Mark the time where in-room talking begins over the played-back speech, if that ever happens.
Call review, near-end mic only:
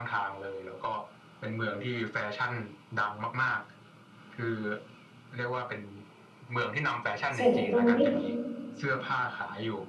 7.3 s

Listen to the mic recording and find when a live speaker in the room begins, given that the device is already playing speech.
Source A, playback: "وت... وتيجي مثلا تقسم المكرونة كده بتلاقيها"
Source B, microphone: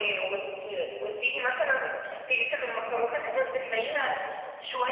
none

